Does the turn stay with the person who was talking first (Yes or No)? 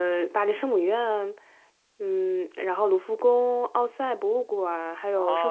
No